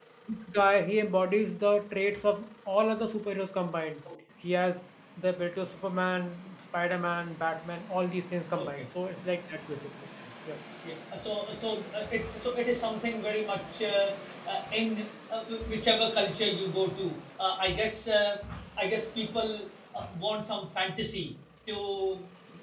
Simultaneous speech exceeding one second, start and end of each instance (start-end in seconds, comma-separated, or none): none